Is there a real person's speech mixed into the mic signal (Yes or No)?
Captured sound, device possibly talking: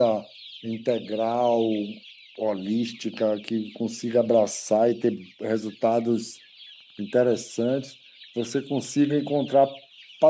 Yes